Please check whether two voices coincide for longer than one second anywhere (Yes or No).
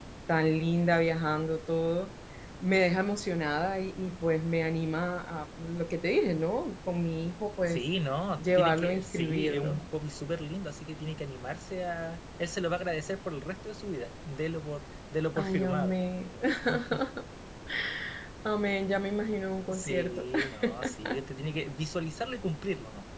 Yes